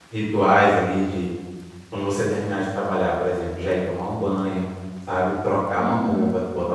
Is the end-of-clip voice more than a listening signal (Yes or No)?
No